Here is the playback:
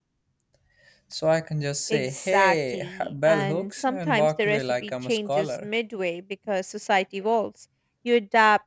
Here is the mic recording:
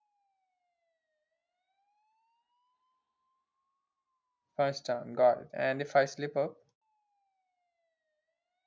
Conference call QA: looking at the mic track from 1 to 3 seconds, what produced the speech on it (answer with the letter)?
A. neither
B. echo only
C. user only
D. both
A